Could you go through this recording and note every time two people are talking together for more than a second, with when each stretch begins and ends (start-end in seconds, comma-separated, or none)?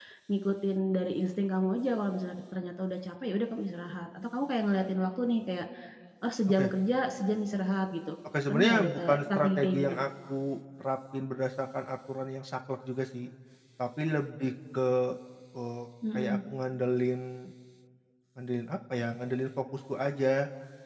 8.5-10.0